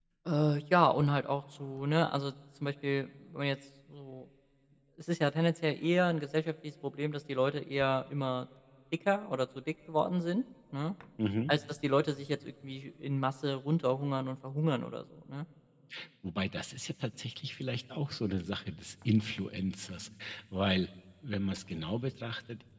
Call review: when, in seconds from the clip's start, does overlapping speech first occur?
none

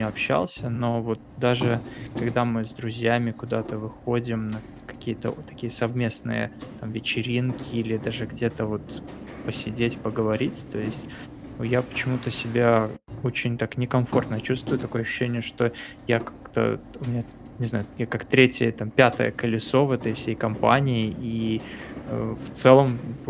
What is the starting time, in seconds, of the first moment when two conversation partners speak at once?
none

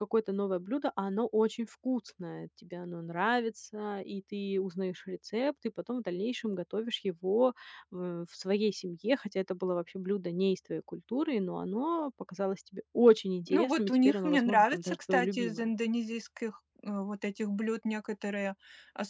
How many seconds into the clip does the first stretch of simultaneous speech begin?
13 s

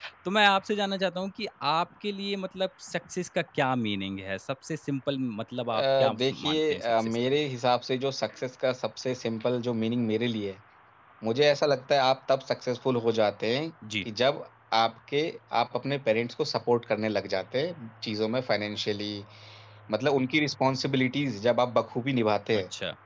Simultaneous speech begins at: 6 s

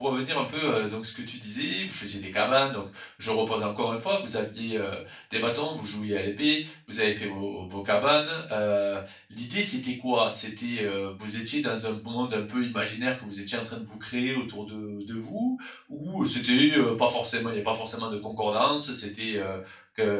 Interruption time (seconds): none

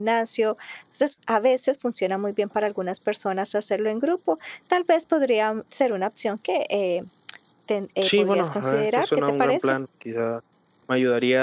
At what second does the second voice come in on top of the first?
8 s

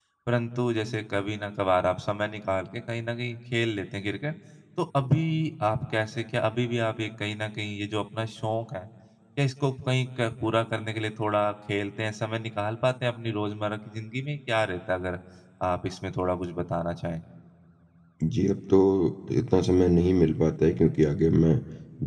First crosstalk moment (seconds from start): none

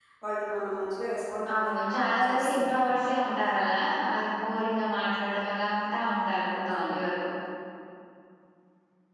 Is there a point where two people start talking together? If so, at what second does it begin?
2 s

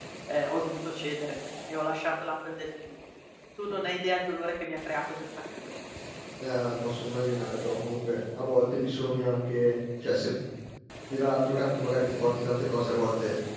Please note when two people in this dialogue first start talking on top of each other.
none

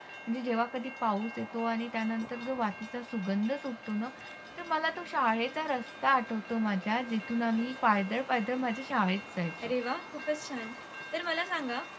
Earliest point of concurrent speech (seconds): none

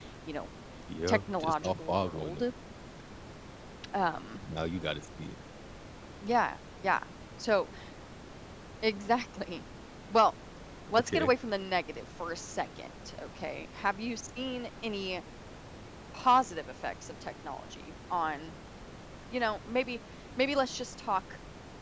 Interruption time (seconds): 1 s

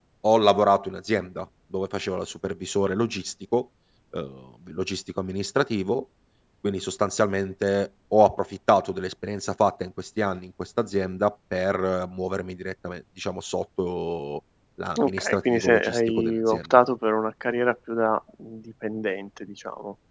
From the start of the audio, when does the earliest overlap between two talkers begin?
15 s

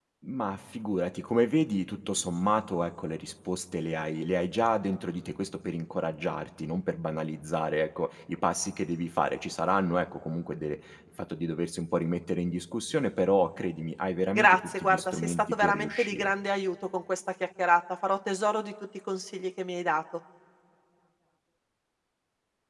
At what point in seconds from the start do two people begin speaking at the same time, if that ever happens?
14 s

